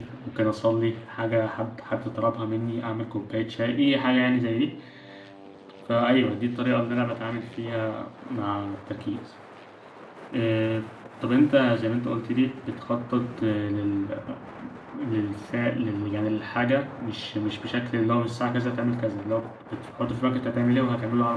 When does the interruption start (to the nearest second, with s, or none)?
none